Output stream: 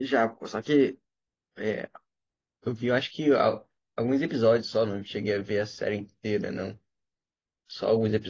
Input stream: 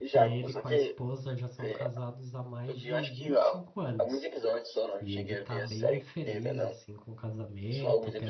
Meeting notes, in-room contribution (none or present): present